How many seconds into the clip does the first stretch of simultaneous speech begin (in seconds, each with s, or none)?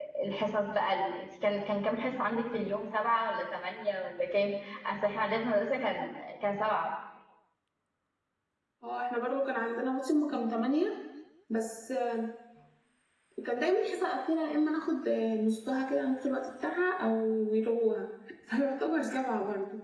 none